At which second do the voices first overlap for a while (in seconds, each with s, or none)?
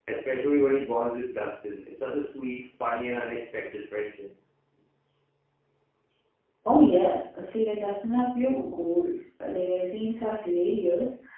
none